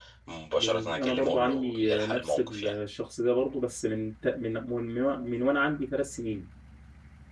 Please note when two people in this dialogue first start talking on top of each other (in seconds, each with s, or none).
0.6 s